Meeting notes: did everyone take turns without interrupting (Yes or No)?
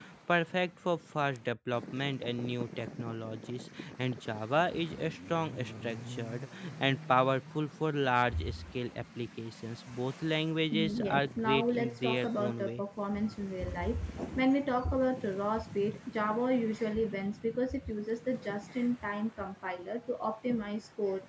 No